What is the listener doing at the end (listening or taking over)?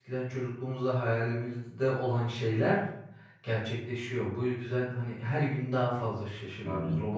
listening